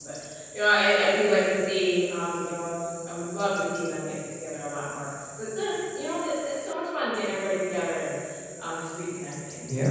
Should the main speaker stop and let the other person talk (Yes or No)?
Yes